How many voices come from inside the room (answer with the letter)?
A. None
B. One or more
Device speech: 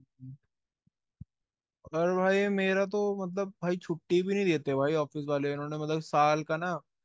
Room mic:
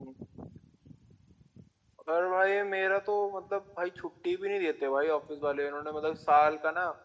A